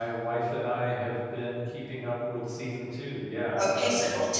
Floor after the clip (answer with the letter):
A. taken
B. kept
A